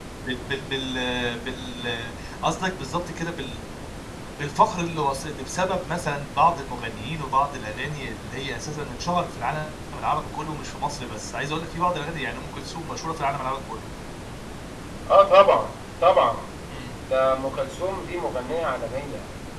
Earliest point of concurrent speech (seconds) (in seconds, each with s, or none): none